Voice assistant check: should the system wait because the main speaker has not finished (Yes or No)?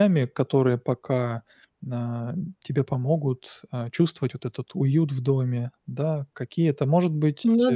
Yes